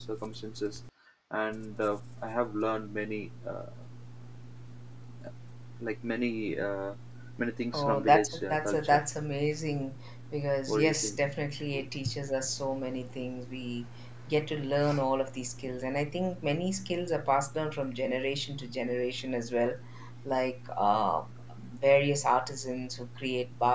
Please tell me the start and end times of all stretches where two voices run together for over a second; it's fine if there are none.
7.7-9.0

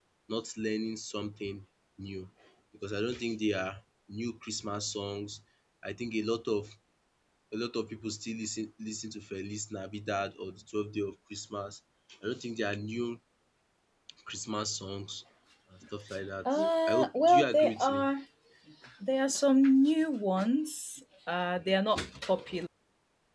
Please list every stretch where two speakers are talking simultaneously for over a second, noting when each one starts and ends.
16.5-18.1

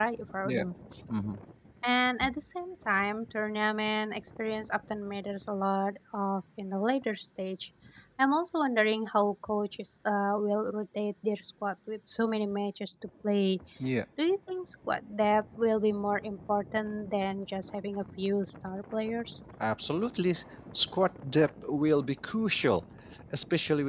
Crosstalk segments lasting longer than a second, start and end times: none

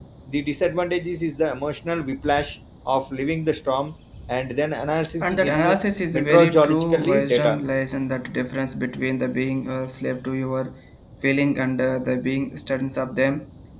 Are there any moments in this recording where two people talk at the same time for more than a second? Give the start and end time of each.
6.1-7.6

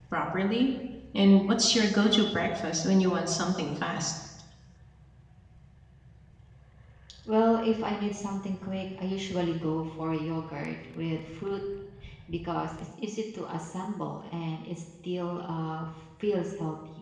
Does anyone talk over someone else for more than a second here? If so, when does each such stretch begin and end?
none

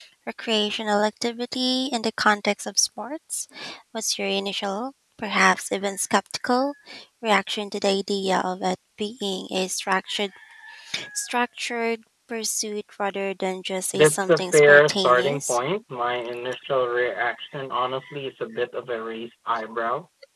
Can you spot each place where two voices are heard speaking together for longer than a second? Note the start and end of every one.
13.9-15.6

